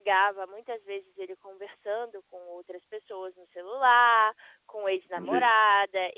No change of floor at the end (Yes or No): Yes